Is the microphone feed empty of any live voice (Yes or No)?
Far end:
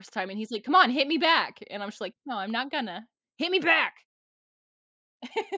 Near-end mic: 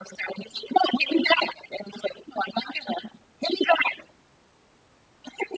Yes